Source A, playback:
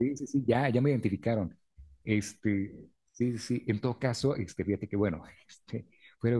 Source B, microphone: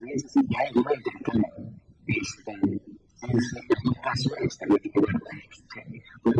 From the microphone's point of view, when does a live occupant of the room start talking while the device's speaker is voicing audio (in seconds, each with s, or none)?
none